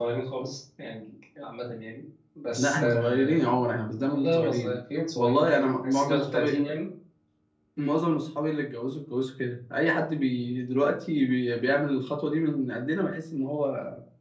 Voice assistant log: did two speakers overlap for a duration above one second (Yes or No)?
Yes